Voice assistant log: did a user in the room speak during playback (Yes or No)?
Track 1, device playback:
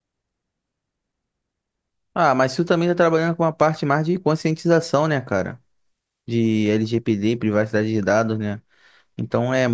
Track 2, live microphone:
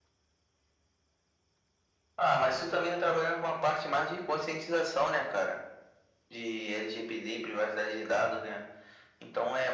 No